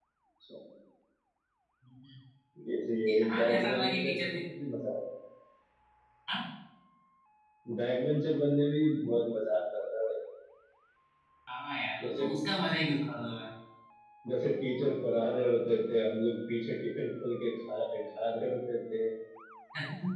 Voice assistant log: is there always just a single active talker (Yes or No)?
No